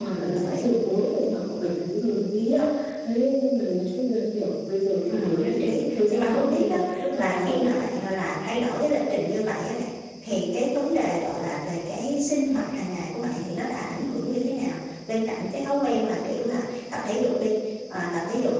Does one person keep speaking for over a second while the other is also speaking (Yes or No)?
Yes